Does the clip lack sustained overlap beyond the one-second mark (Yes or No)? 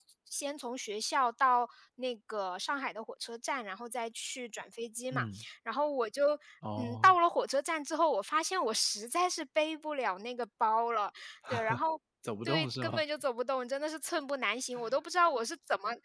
Yes